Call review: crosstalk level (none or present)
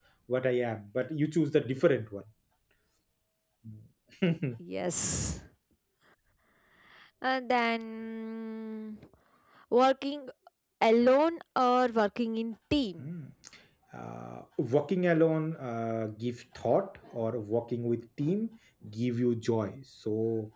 none